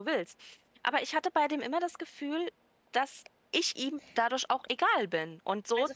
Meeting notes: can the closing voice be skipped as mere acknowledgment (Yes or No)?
No